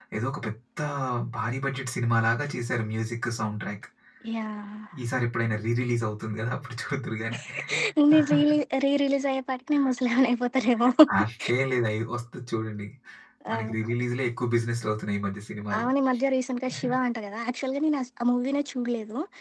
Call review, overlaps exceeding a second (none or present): none